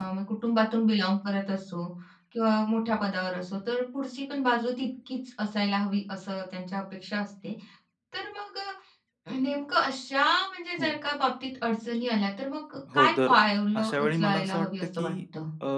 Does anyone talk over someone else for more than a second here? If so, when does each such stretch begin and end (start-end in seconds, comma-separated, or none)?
13.8-15.1